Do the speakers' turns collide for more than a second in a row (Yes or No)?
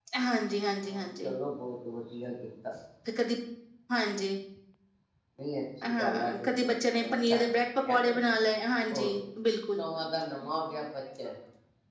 Yes